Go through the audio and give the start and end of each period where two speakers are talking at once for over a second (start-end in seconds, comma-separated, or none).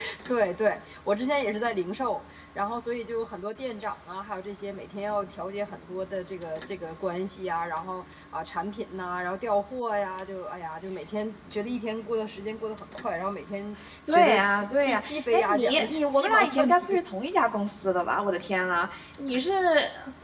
14.1-17.0